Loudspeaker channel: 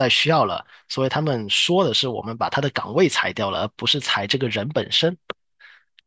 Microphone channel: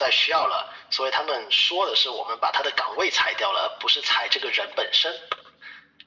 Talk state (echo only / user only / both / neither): echo only